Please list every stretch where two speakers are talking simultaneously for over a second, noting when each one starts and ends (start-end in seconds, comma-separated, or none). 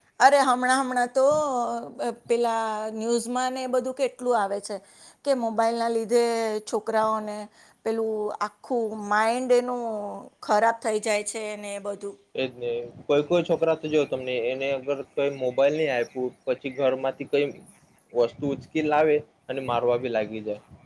none